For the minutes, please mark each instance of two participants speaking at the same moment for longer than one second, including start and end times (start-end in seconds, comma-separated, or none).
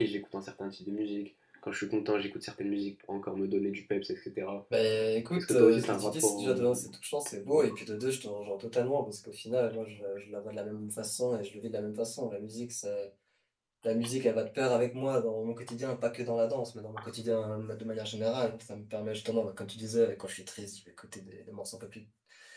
5.4-6.8